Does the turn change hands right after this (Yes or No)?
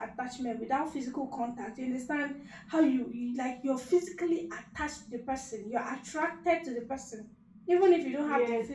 Yes